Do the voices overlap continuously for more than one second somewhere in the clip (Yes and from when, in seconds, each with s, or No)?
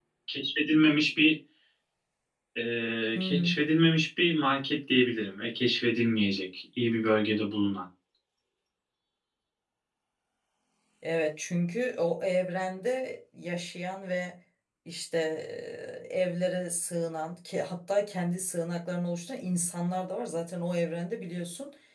No